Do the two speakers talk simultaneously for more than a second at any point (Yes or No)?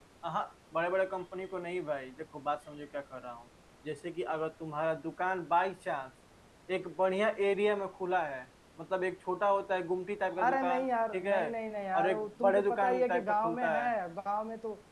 Yes